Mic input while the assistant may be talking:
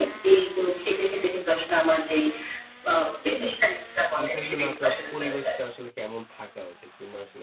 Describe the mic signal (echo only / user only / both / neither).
both